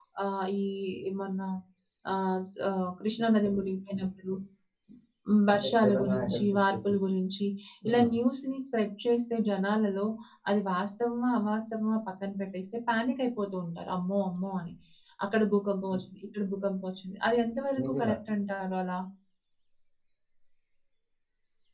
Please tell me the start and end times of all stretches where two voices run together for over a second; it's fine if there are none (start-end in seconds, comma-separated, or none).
5.5-6.9